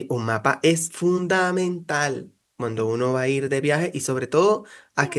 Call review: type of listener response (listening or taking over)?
listening